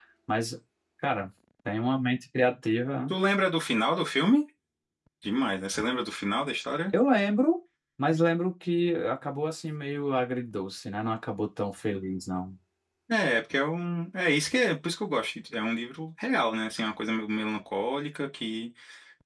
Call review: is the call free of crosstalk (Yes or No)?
Yes